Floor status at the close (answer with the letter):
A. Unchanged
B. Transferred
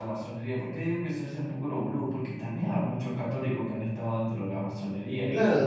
B